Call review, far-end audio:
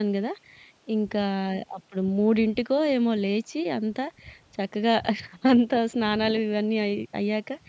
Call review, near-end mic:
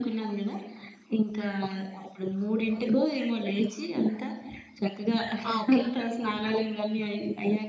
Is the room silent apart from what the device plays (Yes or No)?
No